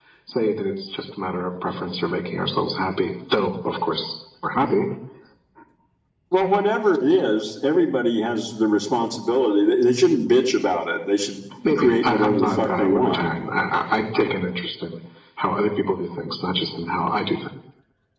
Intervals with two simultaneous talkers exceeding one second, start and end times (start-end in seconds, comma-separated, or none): 11.8-13.2